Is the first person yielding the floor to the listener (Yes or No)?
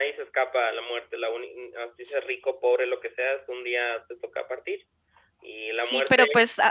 Yes